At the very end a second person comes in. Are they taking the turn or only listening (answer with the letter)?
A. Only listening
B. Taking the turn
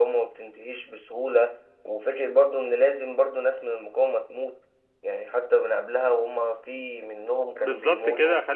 B